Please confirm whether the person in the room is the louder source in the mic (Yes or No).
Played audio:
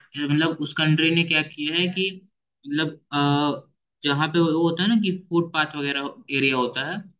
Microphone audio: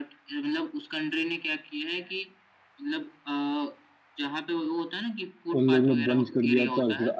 Yes